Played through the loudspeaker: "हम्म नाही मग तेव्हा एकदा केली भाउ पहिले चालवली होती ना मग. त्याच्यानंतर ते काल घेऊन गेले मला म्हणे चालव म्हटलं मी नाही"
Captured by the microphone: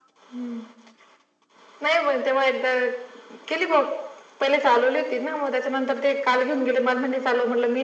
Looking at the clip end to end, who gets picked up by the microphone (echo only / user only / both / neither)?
echo only